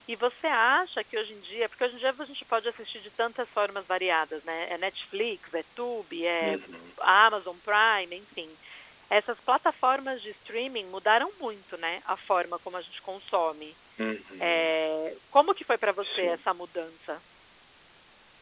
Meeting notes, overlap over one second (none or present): none